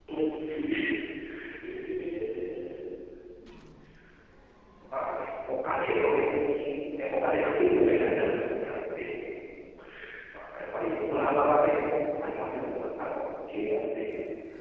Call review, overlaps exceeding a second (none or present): none